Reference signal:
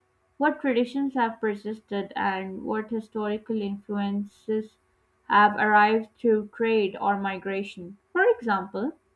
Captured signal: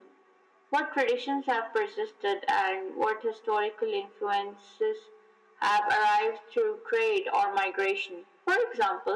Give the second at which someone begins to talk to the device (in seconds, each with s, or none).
none